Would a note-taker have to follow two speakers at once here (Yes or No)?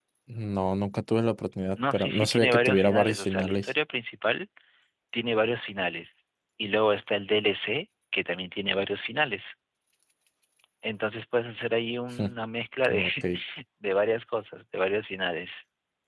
Yes